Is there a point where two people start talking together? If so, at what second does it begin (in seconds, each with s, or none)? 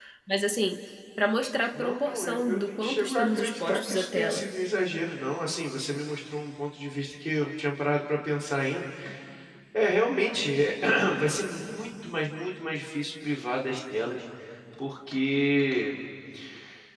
1.7 s